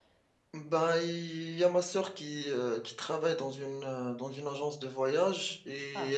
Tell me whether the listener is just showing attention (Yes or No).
Yes